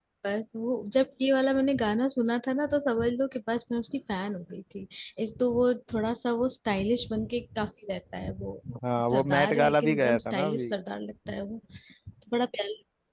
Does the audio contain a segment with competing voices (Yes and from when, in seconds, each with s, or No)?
Yes, from 9.1 s